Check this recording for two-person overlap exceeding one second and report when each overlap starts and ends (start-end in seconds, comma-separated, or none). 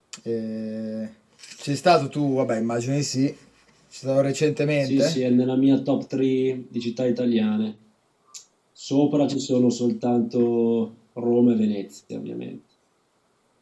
none